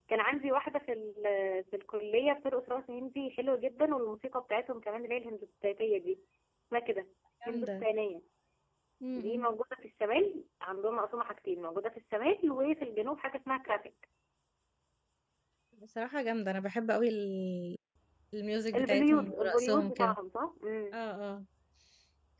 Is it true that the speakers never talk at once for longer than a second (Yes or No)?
No